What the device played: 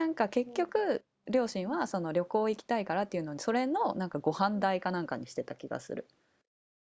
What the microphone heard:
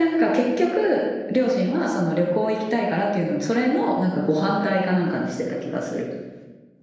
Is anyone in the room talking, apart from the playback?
No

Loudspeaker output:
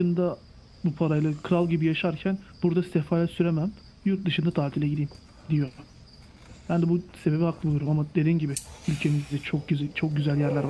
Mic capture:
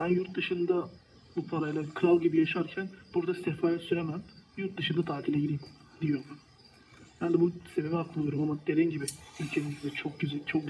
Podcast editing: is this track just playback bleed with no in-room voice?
Yes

